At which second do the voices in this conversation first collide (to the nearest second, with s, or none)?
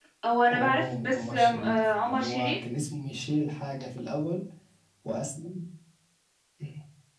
1 s